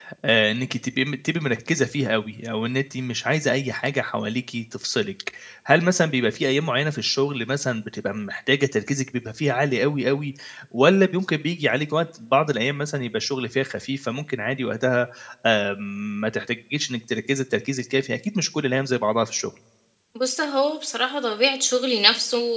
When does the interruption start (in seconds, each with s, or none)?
none